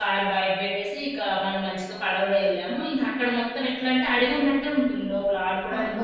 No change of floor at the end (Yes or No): No